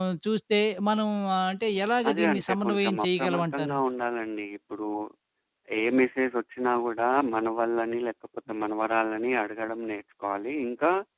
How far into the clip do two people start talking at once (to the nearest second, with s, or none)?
2 s